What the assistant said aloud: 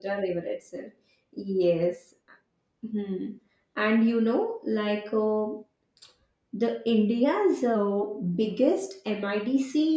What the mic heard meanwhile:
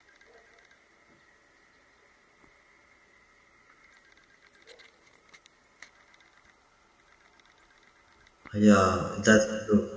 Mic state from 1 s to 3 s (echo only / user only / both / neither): neither